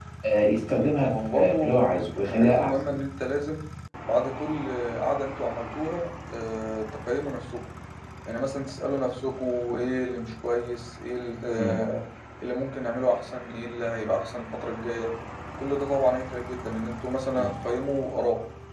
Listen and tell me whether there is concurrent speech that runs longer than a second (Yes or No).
Yes